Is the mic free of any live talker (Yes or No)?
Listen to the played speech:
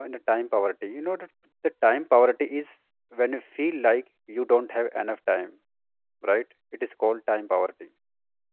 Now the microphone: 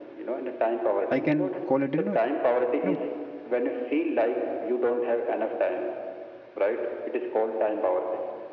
No